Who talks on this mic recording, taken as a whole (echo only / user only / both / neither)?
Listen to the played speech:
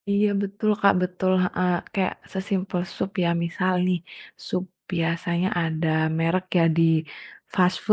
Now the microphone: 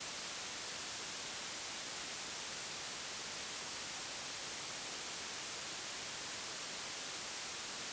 neither